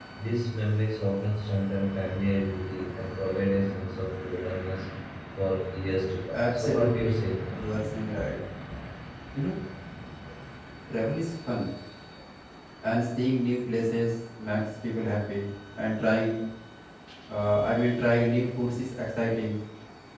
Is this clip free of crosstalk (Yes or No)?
No